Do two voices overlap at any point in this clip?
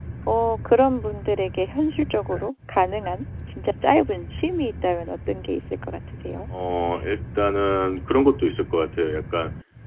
No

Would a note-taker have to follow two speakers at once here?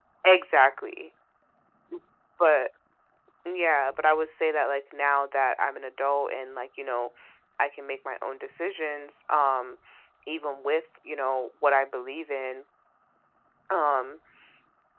No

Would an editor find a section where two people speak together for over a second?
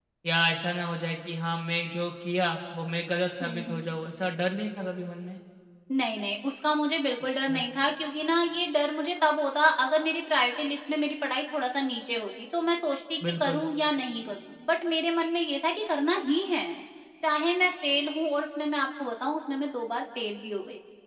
No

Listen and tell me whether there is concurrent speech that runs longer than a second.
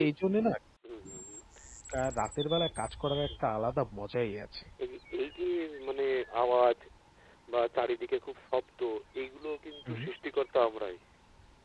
No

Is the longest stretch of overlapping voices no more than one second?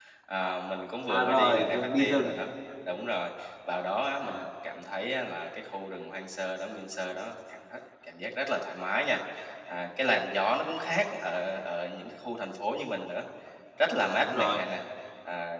No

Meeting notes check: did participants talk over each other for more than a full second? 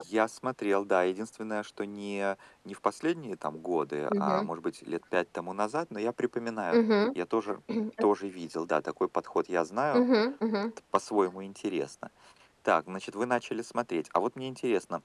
No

